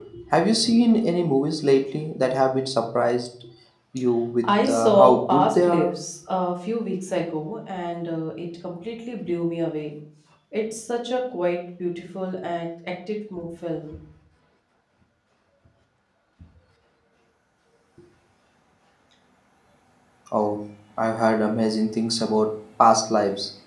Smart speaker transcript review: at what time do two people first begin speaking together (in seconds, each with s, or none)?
4.4 s